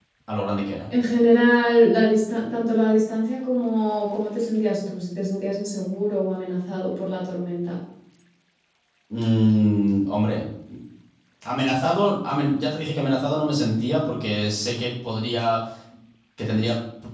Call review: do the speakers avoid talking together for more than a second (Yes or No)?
Yes